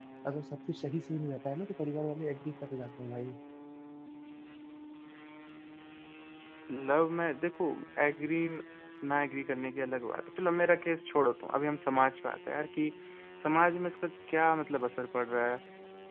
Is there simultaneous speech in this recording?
No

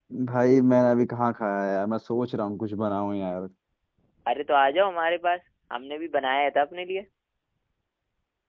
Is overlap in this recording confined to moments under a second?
Yes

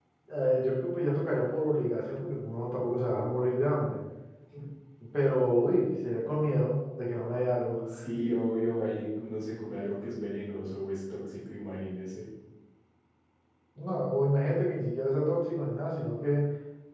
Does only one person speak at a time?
Yes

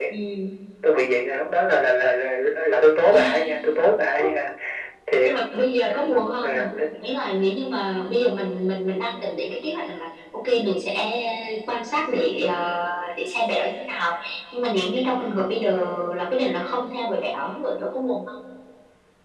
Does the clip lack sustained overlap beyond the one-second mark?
Yes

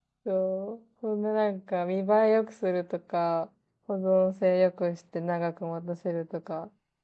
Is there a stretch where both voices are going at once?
No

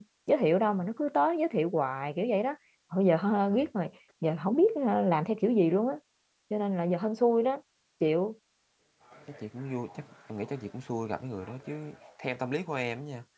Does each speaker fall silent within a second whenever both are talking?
Yes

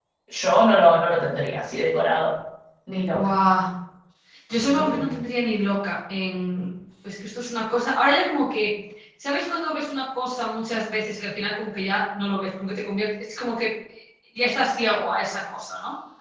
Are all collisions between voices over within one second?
Yes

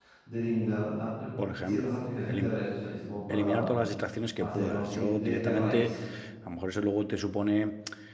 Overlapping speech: Yes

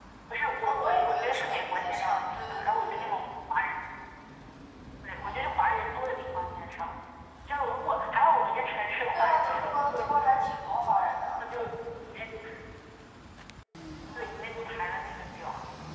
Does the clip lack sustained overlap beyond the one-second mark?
No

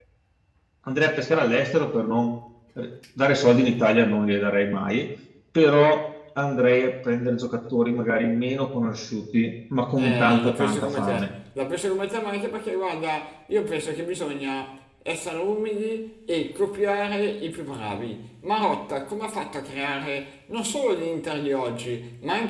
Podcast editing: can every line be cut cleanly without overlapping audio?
No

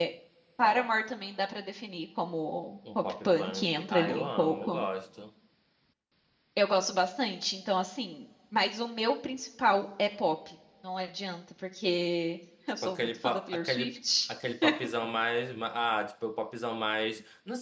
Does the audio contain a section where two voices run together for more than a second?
Yes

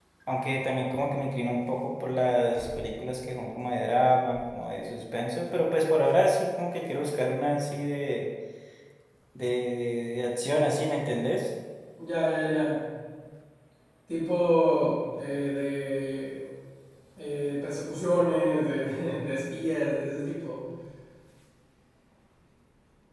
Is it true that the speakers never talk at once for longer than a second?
Yes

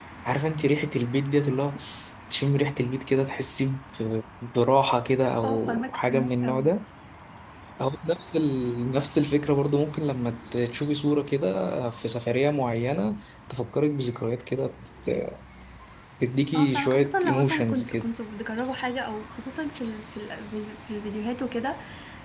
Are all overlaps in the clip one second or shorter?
No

